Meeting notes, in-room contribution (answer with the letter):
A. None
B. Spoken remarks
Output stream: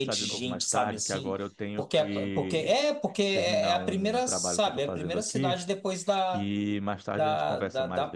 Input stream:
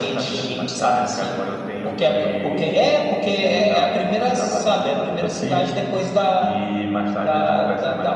A